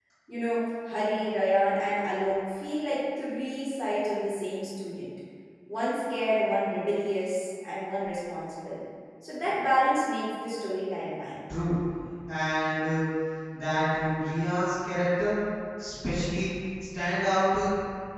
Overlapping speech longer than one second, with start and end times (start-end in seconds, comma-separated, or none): none